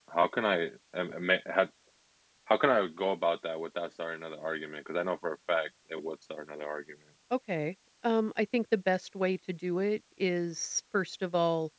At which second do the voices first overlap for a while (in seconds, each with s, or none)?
none